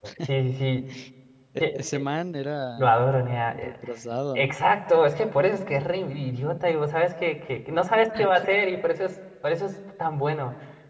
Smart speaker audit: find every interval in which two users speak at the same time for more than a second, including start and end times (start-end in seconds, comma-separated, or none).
none